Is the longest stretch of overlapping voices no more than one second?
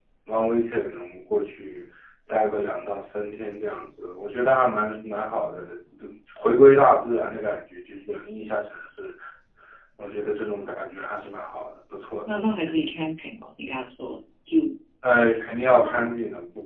Yes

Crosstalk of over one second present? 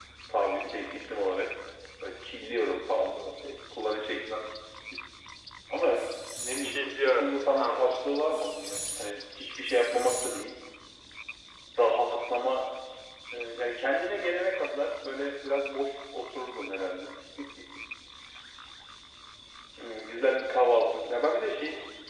Yes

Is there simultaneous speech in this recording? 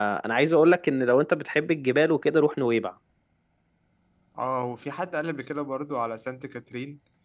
No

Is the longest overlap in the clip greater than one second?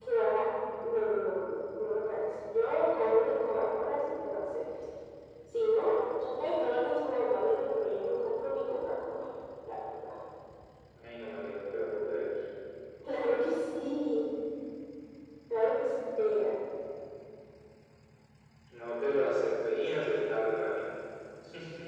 No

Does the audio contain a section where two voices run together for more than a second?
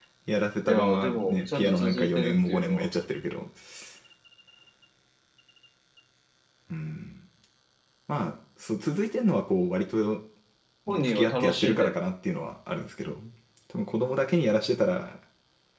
Yes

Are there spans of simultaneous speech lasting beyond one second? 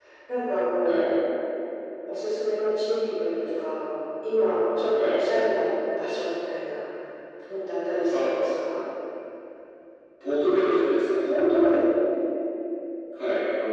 No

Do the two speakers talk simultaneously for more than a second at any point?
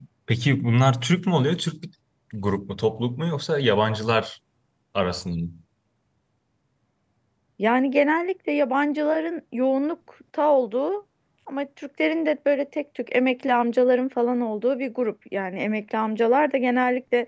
No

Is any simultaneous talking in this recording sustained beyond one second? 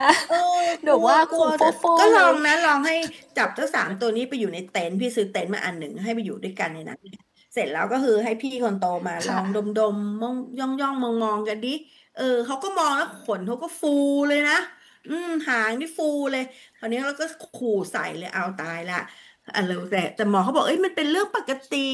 Yes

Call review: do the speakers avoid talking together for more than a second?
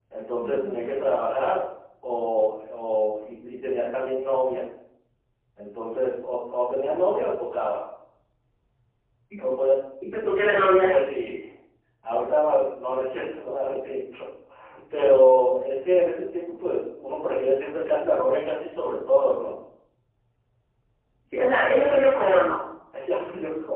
Yes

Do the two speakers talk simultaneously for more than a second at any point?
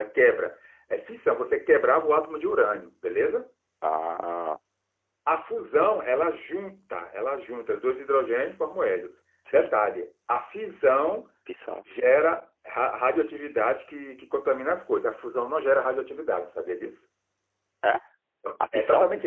No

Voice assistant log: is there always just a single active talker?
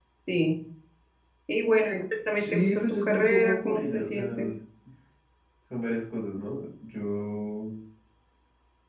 No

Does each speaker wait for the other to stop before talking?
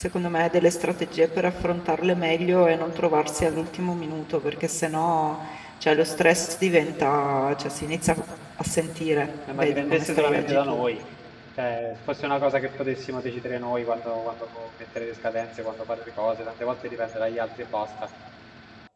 No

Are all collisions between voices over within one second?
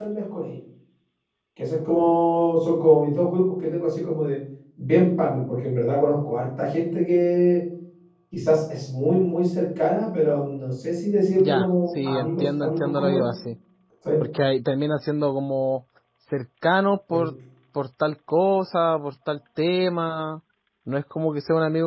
No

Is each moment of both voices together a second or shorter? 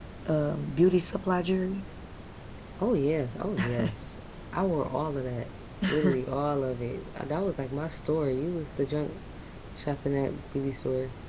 Yes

